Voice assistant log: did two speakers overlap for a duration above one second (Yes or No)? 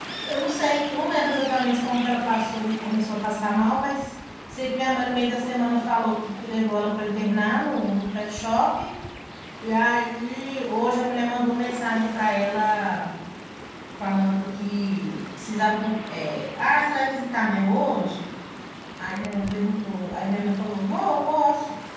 No